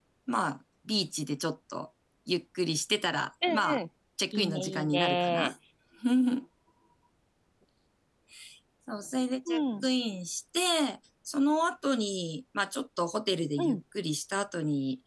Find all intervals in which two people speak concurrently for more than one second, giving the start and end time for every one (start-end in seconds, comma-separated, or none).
4.3-5.5